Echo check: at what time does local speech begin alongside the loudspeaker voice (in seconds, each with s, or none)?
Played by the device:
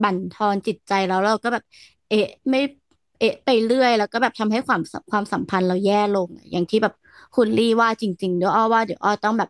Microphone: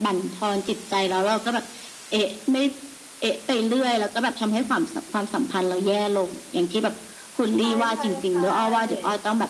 7.6 s